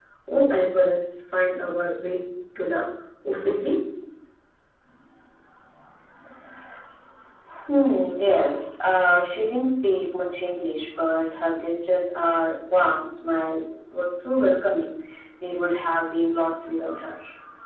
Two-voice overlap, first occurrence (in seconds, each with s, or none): none